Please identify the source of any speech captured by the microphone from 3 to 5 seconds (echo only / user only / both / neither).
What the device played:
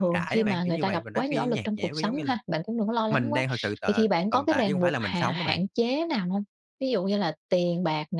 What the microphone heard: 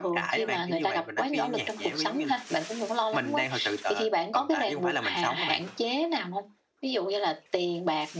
echo only